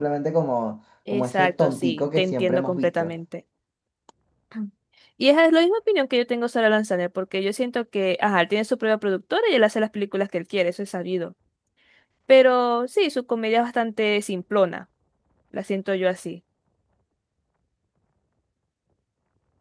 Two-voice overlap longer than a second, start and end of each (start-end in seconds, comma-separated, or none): 1.1-3.1